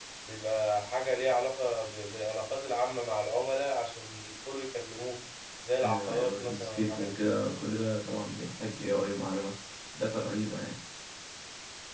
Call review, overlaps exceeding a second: present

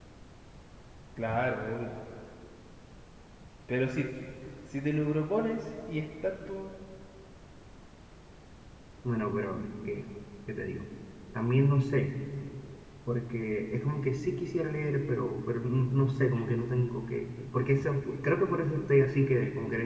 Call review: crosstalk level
none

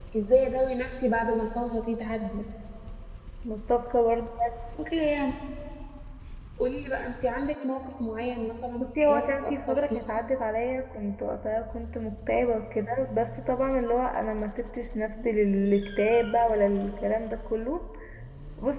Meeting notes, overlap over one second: present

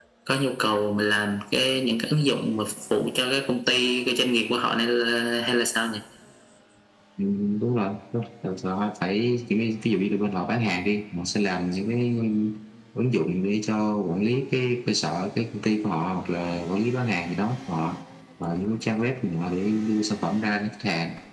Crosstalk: none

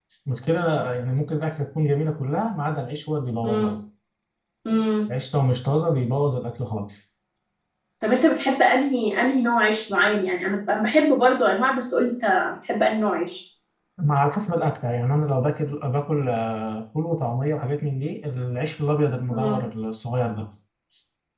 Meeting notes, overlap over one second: none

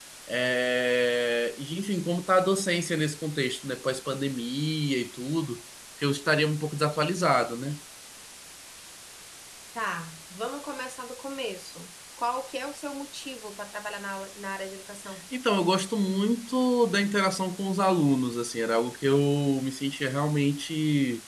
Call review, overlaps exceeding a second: none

